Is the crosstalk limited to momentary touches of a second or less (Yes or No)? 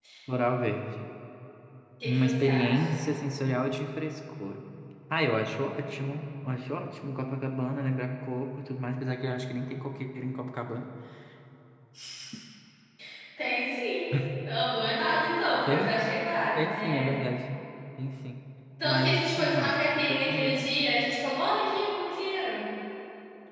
No